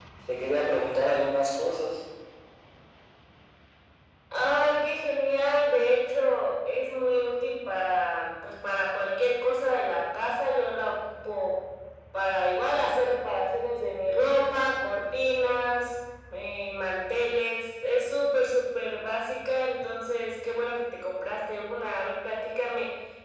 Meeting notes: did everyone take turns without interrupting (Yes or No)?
Yes